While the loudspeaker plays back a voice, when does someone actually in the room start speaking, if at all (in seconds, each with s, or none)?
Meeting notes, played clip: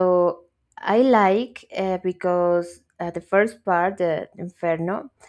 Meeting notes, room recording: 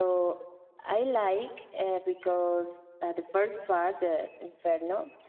none